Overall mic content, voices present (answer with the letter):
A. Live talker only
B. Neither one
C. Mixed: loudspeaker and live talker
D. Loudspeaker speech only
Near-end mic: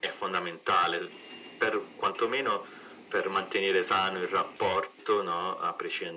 D